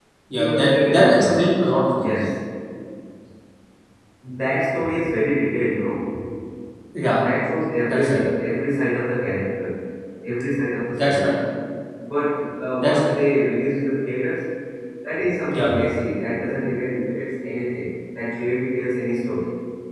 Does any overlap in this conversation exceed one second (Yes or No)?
Yes